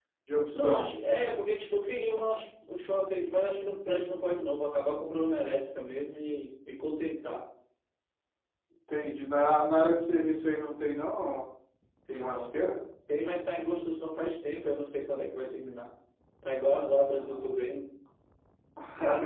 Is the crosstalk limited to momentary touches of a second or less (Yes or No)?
Yes